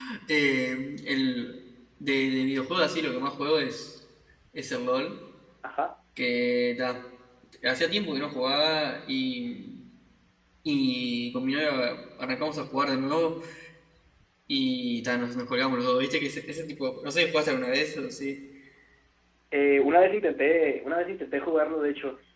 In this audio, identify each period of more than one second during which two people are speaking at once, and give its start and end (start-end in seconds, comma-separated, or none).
none